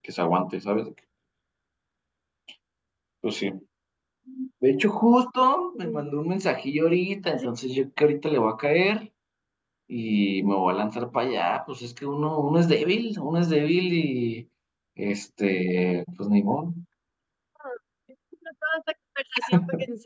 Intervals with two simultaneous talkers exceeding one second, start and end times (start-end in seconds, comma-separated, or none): none